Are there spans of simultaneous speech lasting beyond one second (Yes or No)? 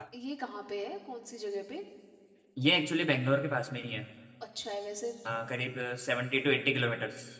No